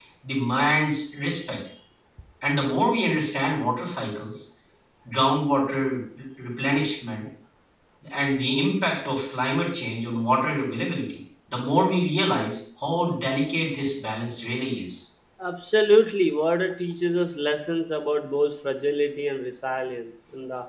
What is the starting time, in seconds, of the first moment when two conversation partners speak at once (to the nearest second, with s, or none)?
none